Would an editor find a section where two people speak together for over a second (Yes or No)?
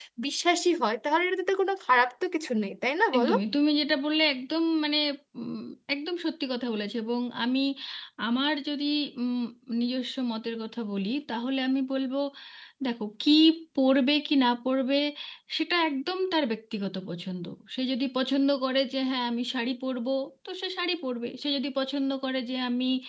No